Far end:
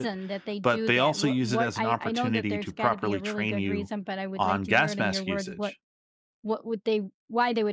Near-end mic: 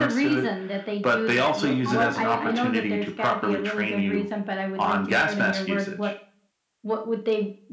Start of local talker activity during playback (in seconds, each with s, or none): 1.8 s